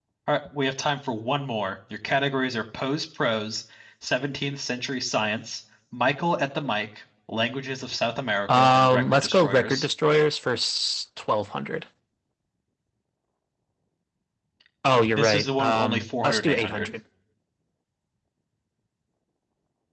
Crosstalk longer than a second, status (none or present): present